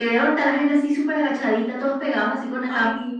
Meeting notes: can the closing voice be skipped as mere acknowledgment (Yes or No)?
Yes